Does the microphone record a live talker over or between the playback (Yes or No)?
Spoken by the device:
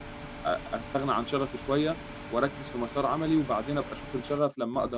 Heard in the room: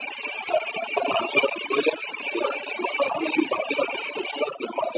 No